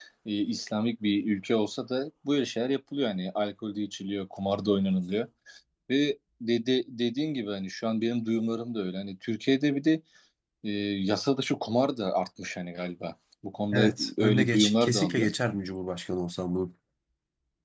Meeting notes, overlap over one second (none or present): present